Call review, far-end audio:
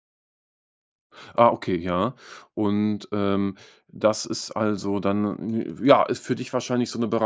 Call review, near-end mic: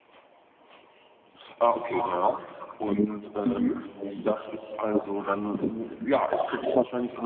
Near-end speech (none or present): present